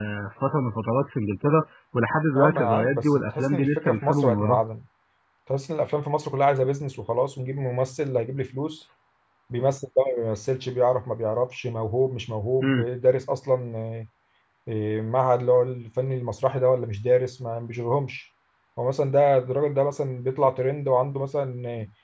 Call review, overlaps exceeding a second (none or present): present